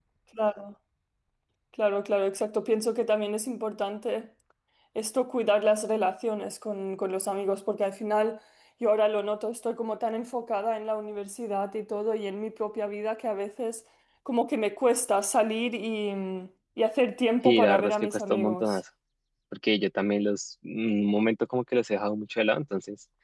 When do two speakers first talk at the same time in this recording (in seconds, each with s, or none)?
17.4 s